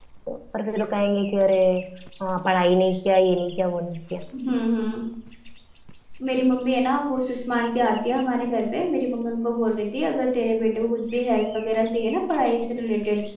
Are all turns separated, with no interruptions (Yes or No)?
Yes